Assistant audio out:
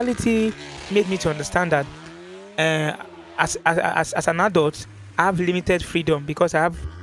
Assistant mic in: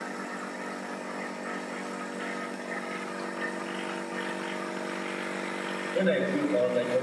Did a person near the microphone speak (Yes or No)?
Yes